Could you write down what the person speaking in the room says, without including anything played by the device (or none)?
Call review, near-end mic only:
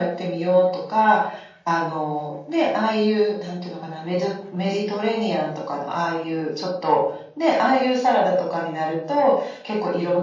none